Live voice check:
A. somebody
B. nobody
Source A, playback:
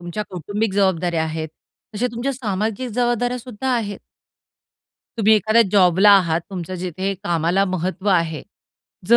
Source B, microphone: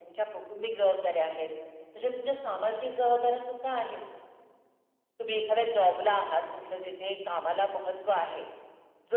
B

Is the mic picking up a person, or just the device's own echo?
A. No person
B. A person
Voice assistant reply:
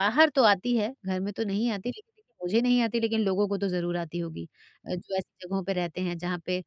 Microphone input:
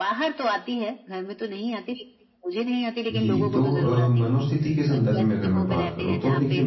B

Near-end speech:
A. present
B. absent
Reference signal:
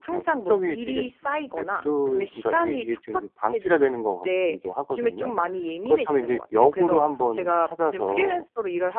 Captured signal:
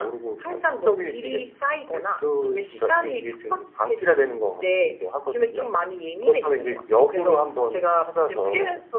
B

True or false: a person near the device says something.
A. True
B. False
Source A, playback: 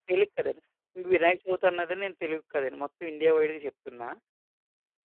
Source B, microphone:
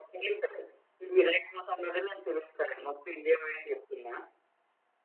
B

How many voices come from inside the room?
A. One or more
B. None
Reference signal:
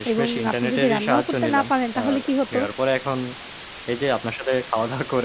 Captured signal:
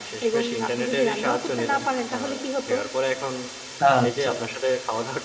A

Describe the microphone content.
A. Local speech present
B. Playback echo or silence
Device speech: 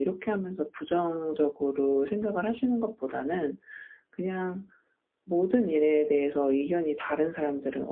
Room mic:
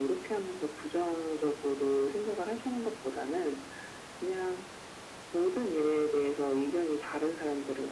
B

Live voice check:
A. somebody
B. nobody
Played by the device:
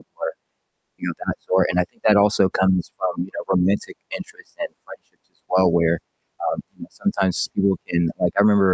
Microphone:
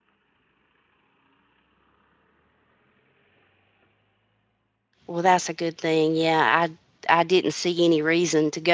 A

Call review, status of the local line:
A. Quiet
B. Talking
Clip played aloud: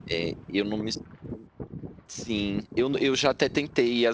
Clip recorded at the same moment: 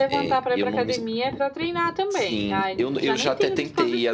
B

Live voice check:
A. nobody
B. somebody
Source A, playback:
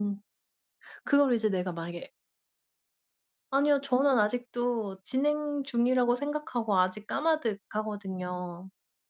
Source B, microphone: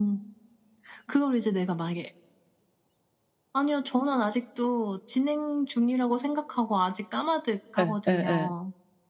B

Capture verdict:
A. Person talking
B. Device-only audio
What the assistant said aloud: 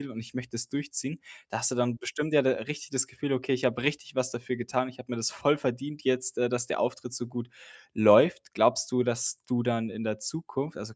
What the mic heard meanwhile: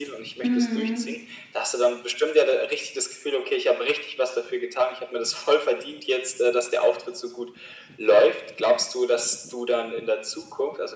A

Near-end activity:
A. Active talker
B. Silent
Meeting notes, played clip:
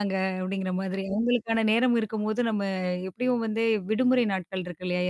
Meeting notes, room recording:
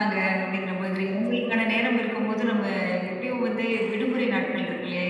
B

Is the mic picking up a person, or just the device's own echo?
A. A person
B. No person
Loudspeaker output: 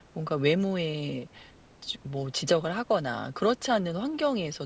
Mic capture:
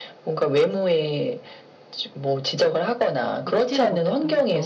A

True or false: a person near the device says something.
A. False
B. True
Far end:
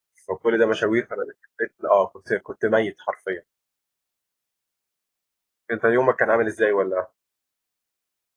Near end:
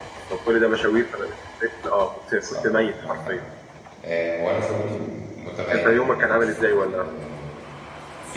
B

